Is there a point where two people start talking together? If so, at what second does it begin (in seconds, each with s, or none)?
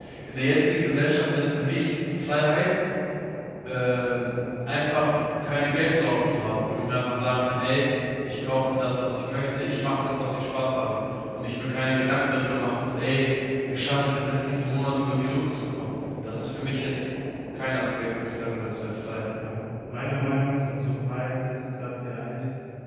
none